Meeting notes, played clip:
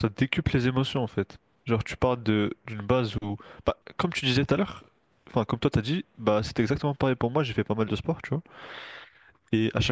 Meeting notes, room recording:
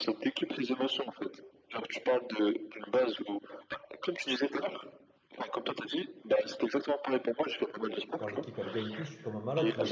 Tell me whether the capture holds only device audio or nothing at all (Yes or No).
No